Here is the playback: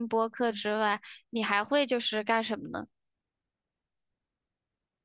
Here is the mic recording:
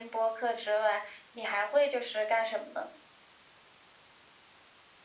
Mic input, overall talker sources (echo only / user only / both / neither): echo only